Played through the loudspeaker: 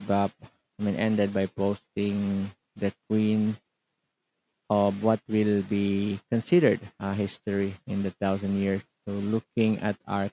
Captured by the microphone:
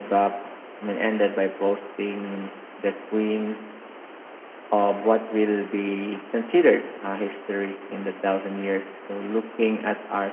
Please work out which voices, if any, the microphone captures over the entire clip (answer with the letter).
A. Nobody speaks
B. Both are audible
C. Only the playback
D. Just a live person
C